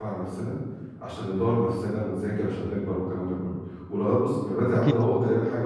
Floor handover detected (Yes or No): No